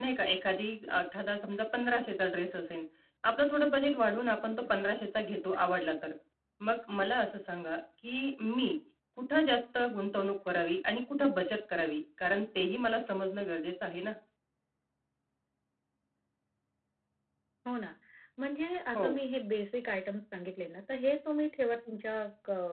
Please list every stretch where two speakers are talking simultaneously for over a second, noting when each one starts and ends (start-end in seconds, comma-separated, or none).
none